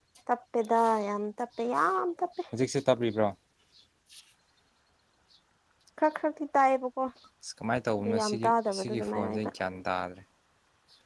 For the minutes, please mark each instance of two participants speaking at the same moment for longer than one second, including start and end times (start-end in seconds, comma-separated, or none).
8.0-9.5